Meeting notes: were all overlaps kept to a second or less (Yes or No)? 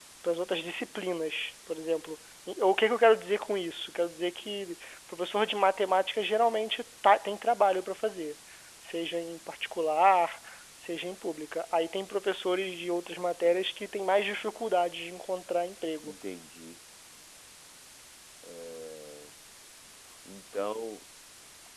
Yes